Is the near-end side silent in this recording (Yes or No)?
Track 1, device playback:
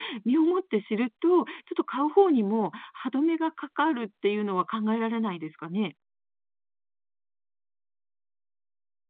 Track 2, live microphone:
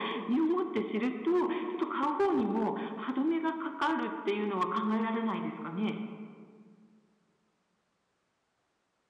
Yes